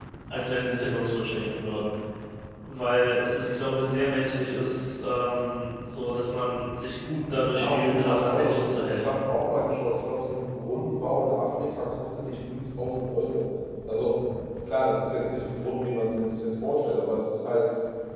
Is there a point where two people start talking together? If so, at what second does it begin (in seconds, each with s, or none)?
7.5 s